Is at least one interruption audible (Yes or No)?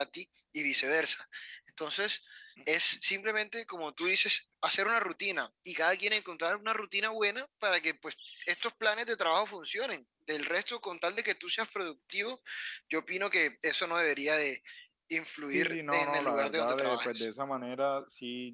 Yes